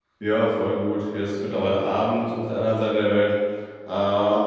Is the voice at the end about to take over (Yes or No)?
No